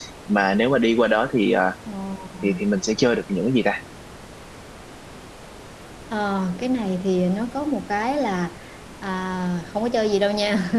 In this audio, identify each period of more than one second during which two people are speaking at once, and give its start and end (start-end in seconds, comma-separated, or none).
none